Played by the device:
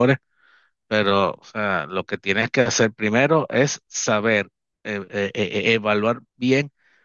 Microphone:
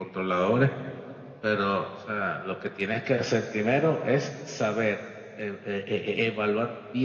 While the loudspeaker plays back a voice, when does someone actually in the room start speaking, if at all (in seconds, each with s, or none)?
none